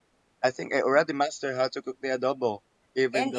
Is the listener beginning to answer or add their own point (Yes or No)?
Yes